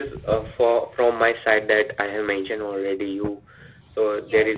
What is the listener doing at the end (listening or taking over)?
taking over